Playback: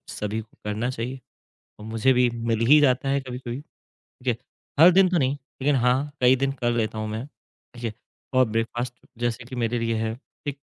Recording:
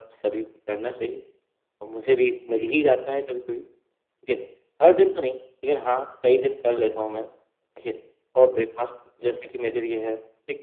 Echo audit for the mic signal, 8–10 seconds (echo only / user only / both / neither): echo only